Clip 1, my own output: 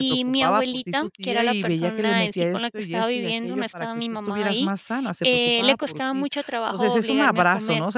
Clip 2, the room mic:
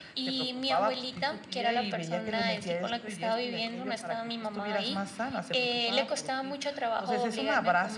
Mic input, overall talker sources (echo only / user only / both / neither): echo only